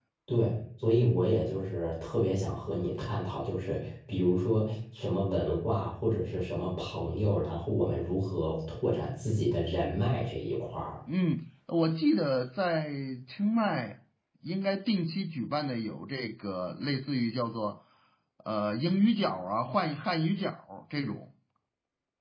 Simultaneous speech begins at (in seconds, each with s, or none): none